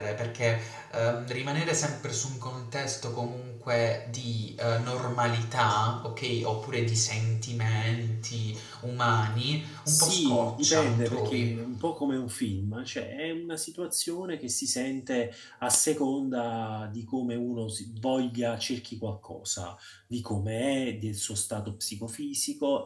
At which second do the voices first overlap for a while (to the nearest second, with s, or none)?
10 s